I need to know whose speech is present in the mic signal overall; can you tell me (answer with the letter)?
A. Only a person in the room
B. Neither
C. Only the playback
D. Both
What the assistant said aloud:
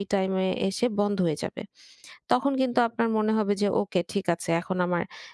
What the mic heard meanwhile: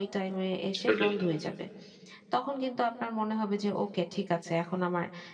D